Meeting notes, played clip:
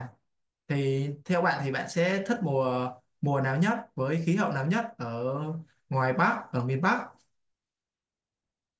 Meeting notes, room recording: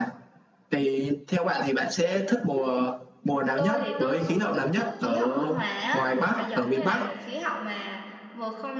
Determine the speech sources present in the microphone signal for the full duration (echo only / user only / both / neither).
both